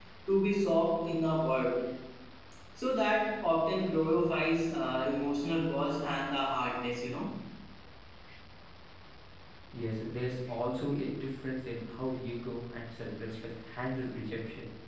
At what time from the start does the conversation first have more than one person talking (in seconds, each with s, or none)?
none